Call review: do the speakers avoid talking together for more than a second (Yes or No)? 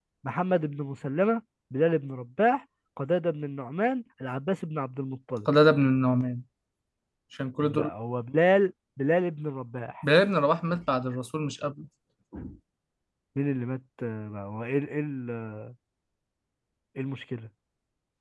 Yes